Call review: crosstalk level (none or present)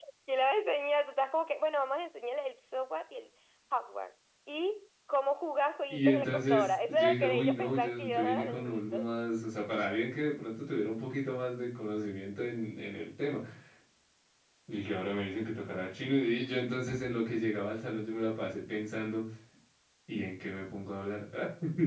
present